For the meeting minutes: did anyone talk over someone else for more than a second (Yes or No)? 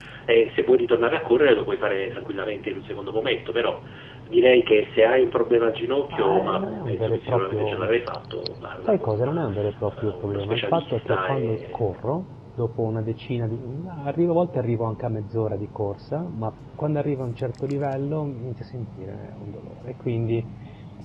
Yes